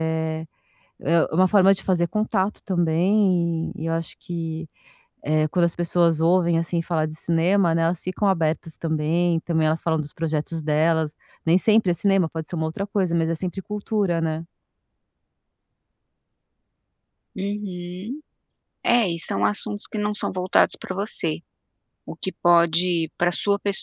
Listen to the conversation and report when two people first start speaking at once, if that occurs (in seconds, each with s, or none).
none